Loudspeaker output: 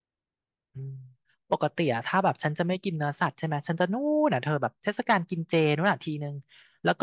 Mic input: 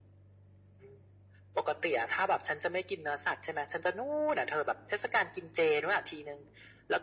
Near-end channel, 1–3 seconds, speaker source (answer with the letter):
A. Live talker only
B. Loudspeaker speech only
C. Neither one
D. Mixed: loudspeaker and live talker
B